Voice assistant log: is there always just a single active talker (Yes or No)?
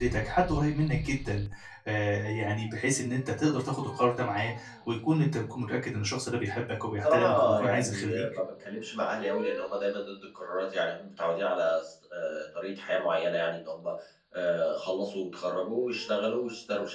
No